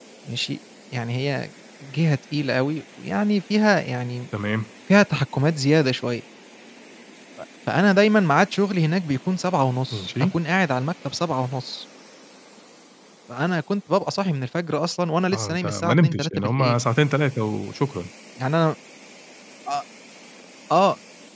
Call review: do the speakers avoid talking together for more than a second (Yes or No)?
No